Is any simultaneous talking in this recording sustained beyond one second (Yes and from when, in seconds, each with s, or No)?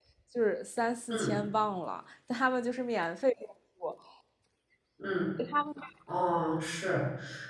No